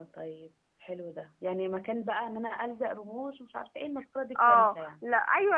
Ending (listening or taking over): taking over